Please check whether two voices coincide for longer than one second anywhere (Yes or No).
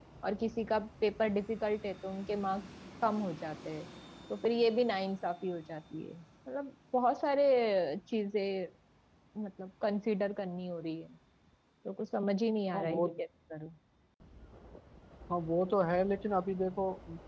No